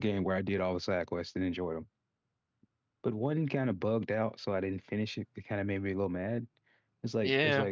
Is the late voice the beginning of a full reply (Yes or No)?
No